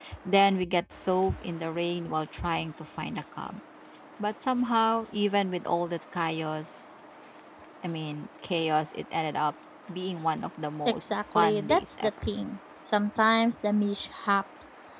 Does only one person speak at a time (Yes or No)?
No